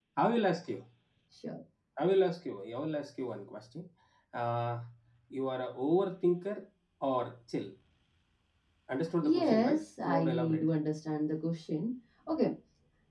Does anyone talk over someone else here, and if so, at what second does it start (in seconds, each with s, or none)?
9.2 s